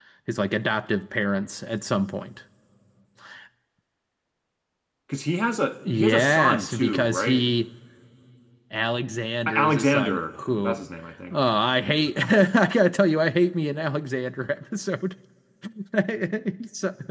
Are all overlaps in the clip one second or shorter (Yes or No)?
No